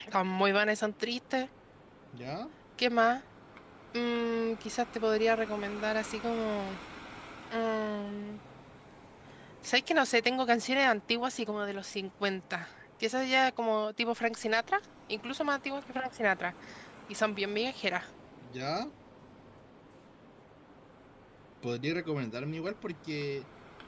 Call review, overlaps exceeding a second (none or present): none